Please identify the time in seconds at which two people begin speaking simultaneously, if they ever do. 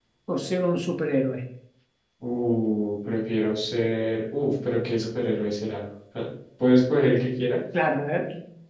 none

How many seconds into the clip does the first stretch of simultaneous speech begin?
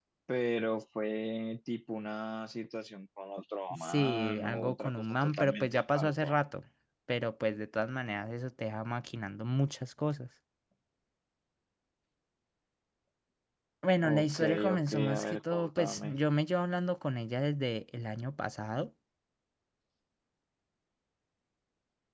3.8 s

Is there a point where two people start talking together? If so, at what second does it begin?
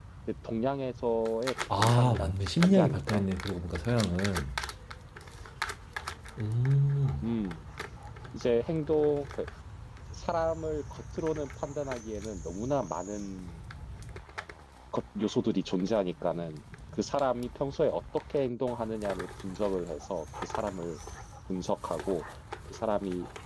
1.7 s

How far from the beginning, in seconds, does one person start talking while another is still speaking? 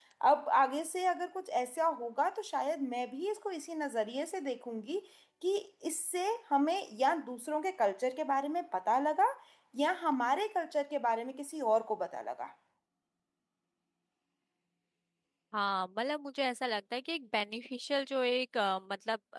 none

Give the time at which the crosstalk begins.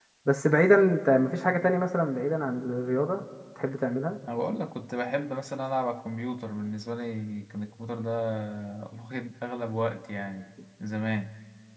none

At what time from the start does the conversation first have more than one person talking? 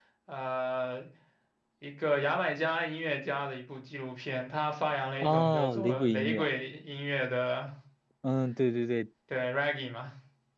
5.2 s

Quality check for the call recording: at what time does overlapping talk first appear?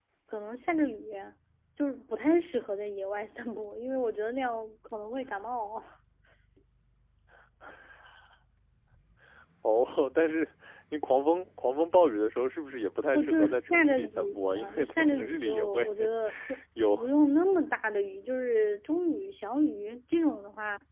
13.1 s

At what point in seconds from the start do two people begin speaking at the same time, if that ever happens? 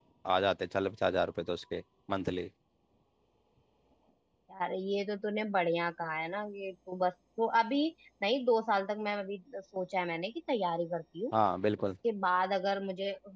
none

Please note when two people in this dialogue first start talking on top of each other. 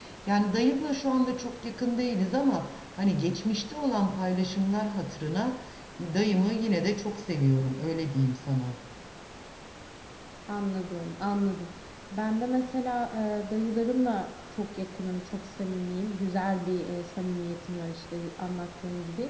none

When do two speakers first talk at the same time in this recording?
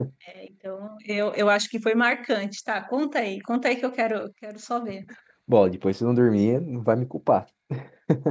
none

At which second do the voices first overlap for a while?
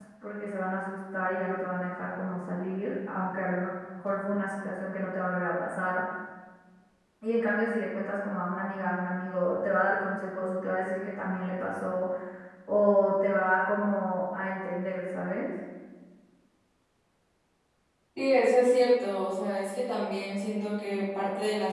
none

